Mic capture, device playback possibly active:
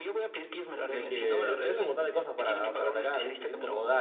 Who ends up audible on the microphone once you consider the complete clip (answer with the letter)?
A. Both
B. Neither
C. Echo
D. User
A